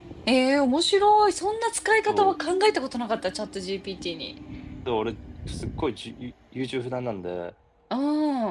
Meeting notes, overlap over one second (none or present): none